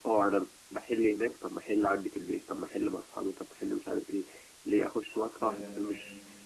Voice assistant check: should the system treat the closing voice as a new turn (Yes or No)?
No